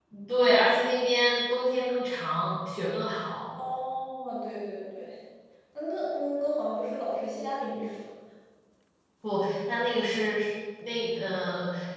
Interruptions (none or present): none